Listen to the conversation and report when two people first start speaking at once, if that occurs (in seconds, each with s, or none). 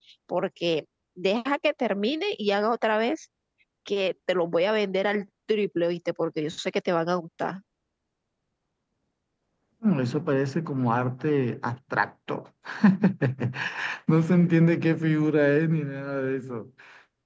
none